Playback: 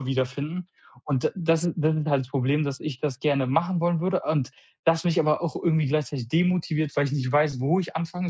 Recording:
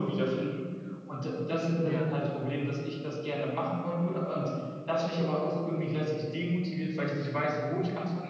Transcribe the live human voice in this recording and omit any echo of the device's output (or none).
ja,